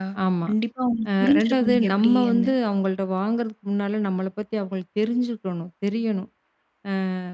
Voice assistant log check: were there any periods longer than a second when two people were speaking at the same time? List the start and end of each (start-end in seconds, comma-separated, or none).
1.2-2.5